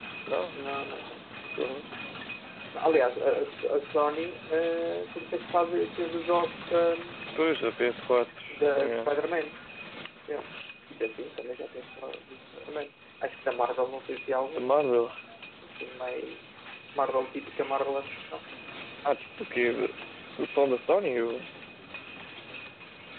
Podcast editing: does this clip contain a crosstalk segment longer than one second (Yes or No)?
No